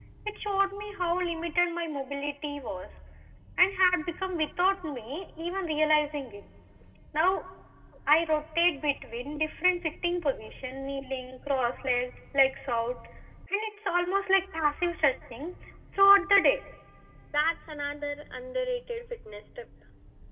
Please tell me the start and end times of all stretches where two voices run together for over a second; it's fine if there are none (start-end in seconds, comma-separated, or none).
none